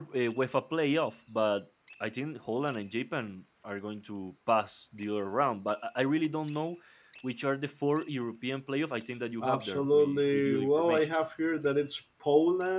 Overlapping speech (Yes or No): Yes